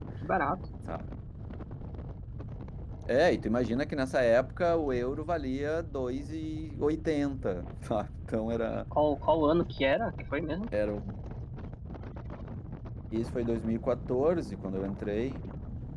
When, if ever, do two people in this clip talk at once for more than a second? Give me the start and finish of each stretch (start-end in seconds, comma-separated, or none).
none